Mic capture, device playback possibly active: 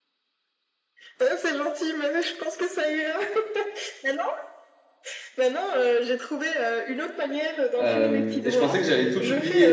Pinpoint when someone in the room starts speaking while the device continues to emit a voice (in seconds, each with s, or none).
7.8 s